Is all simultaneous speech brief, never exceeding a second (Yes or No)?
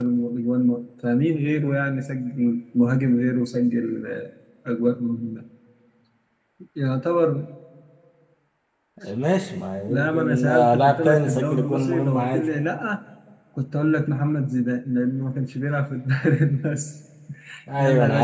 No